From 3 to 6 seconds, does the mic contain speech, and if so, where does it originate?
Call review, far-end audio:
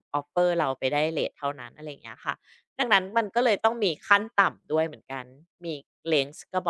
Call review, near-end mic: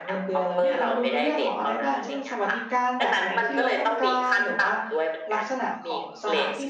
both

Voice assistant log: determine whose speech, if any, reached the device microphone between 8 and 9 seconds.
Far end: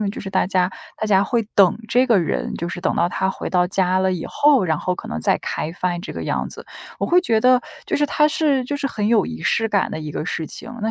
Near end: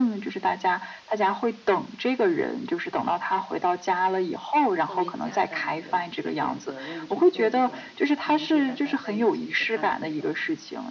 both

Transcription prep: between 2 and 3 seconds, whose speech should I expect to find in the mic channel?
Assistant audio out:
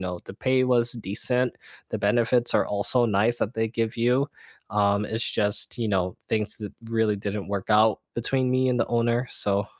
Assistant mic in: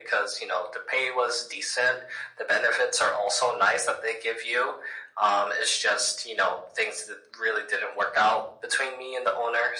echo only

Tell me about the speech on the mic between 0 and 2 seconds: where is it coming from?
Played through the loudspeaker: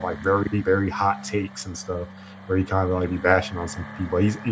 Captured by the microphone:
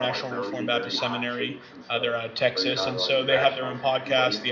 both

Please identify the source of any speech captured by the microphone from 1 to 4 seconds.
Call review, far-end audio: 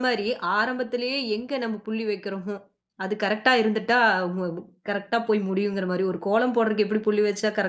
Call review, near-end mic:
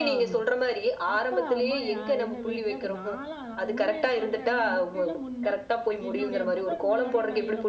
both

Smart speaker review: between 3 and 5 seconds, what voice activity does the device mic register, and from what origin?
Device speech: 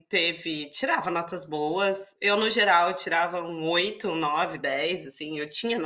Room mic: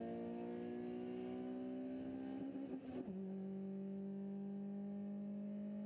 neither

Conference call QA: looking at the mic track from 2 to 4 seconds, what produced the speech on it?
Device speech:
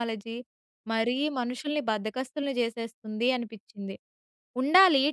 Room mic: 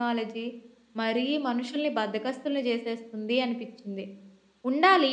echo only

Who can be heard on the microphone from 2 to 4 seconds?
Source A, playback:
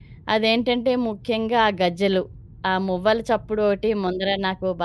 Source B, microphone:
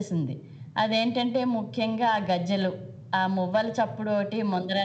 echo only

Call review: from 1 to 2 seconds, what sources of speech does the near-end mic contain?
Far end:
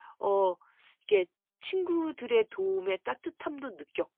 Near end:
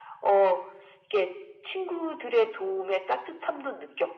echo only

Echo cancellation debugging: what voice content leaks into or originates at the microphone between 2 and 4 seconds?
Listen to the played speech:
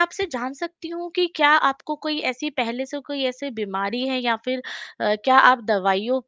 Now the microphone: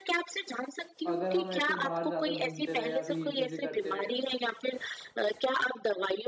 both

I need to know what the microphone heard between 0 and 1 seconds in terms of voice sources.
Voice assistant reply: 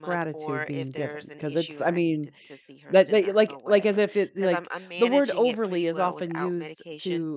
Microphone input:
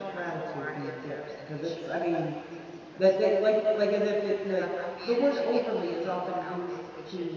echo only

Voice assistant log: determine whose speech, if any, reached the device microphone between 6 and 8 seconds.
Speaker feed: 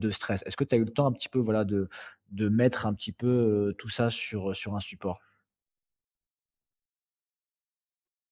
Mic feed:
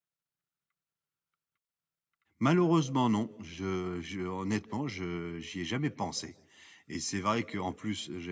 user only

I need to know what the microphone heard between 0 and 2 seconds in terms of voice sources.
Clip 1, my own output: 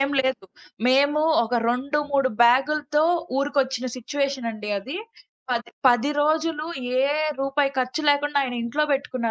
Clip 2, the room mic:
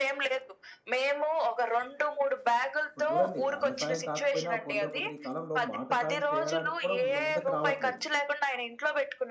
echo only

